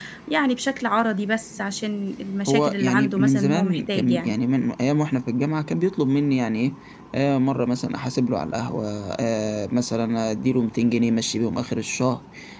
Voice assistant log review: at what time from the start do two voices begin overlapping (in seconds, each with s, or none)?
2.5 s